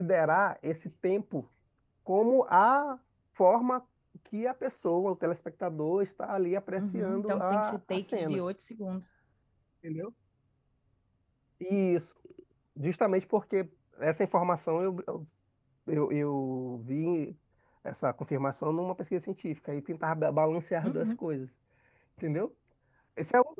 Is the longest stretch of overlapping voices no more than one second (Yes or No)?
No